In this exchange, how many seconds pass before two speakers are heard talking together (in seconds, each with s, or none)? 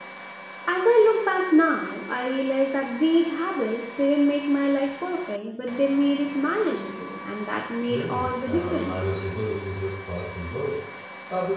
7.9 s